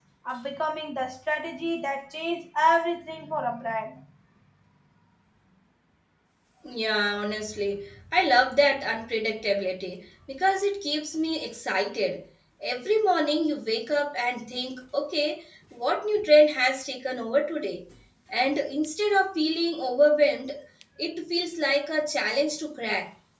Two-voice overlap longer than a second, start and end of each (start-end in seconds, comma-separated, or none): none